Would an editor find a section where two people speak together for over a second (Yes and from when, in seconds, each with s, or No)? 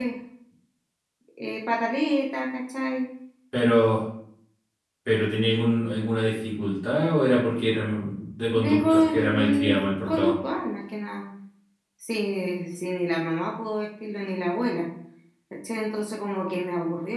Yes, from 8.5 s